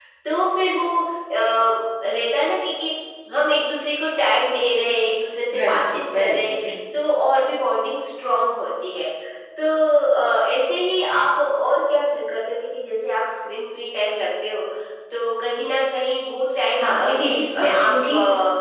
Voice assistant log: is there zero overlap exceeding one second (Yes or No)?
No